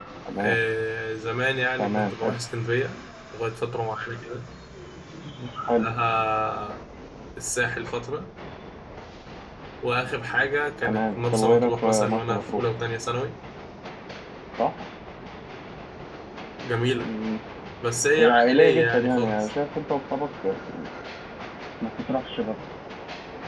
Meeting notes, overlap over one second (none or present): present